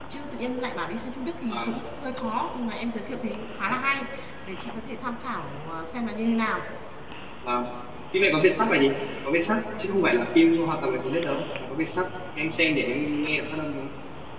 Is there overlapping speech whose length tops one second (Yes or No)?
No